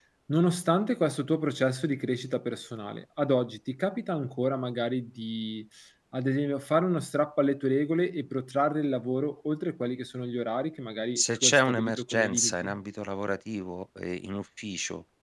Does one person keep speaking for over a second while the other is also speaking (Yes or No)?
Yes